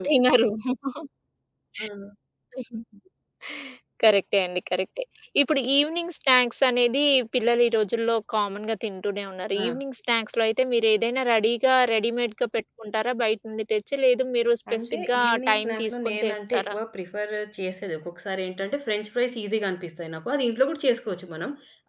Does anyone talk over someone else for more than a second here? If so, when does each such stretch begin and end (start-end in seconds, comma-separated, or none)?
14.7-16.8